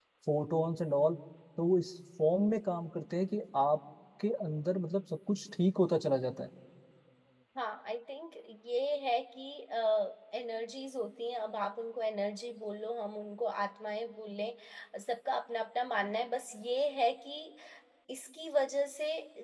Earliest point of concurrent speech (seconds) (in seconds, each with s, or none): none